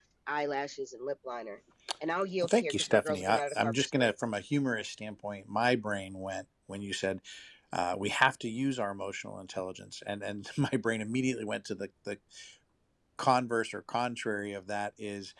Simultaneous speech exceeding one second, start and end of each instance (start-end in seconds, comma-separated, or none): 2.4-4.1